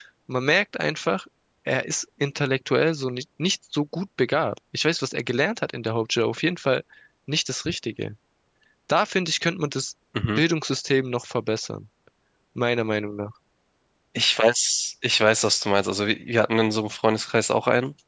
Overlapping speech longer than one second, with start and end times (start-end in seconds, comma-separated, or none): none